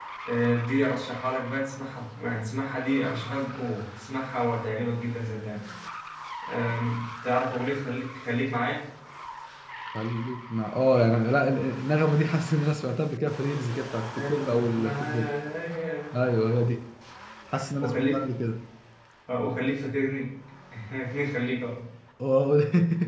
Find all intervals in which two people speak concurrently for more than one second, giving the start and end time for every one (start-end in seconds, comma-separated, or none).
14.1-15.3